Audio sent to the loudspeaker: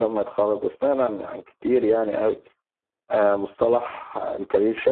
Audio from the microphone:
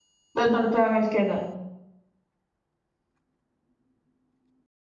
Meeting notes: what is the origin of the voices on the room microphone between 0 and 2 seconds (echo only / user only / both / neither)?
user only